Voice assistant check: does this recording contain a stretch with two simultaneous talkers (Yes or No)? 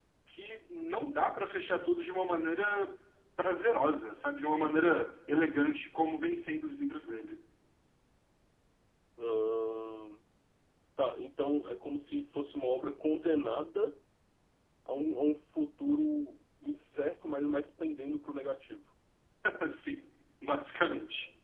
No